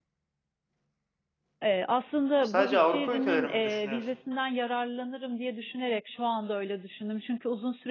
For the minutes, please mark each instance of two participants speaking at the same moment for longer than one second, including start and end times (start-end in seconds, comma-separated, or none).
2.4-4.0